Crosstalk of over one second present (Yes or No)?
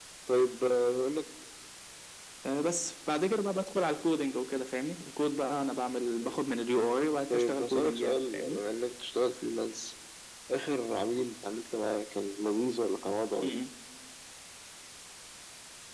Yes